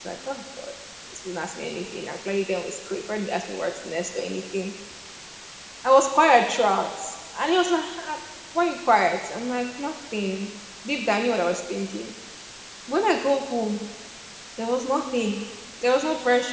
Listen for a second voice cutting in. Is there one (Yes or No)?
No